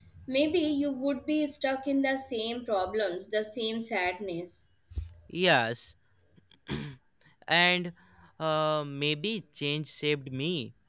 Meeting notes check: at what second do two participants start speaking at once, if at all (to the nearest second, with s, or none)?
none